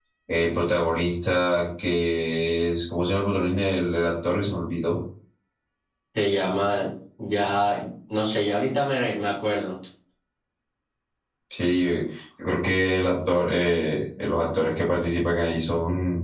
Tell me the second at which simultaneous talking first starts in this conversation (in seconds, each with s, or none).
none